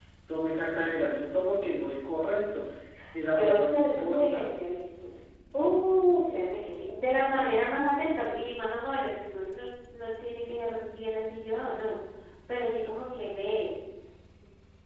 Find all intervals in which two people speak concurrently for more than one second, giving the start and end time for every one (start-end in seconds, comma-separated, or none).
3.3-4.5